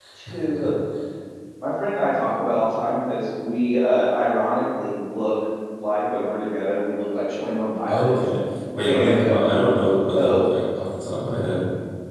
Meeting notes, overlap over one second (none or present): none